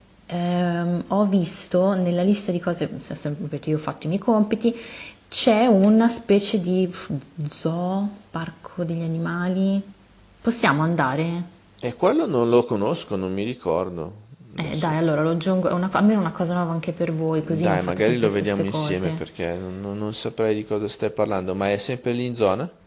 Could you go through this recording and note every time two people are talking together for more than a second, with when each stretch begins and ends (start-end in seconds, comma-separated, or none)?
17.4-19.2